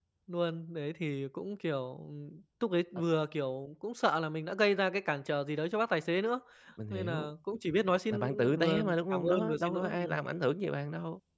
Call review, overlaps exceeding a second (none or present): present